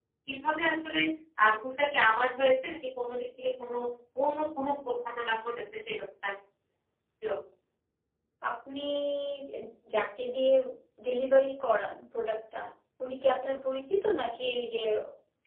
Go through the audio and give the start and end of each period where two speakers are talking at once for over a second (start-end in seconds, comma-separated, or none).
none